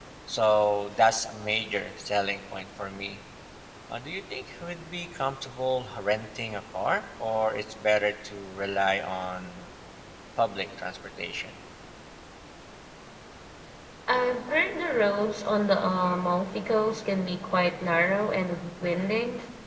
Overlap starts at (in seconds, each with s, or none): none